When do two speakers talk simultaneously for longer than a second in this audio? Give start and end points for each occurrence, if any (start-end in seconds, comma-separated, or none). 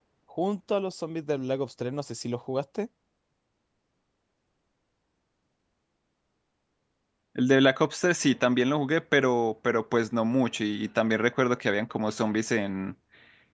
none